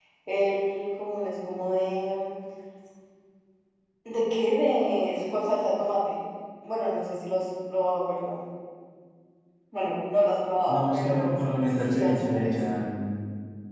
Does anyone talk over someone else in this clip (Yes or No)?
Yes